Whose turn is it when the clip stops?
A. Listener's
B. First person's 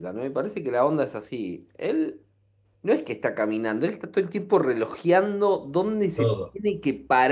B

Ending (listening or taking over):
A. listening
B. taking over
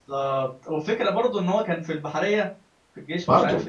A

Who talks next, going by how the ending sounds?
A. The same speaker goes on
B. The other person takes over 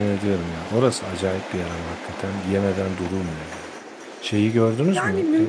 B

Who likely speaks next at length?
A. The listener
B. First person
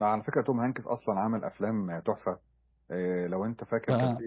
B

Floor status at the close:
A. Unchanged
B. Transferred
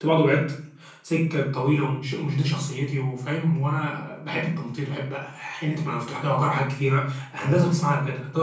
A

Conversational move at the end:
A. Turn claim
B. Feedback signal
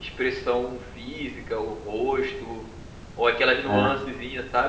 B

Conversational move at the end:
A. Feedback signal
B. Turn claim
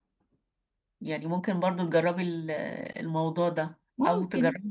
A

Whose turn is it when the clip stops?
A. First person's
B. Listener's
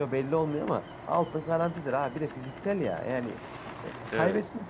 A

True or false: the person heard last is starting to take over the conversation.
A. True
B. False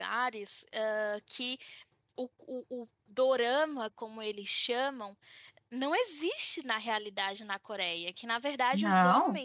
B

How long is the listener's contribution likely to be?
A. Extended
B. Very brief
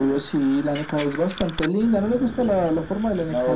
A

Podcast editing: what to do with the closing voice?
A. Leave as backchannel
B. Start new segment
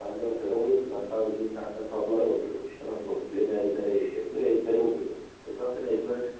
A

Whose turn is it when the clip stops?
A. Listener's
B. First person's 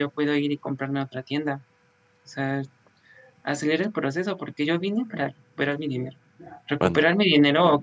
B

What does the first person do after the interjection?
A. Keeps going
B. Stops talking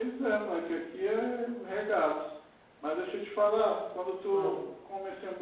A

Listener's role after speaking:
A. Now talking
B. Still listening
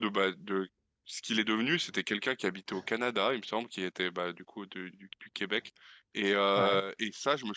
B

